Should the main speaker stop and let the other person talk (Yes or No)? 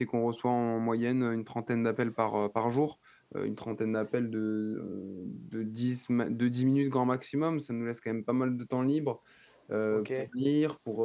No